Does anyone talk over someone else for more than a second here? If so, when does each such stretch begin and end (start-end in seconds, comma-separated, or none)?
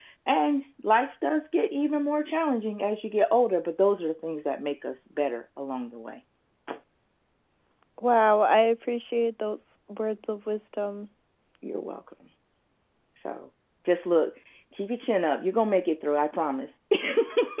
none